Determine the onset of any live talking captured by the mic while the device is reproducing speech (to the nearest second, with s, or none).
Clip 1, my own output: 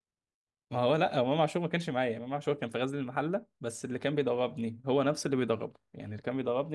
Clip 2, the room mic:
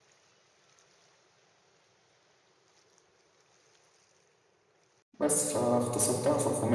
5 s